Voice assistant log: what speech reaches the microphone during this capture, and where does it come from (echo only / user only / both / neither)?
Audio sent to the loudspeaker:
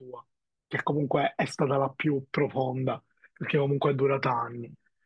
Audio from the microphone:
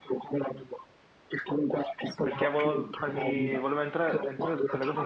both